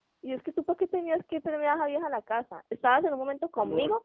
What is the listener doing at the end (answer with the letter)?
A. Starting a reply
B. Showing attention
B